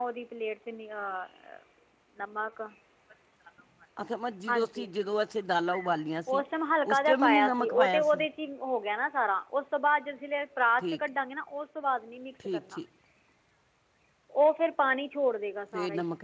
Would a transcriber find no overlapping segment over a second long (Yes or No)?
No